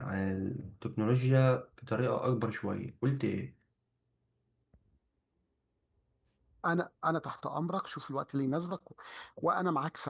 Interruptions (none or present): none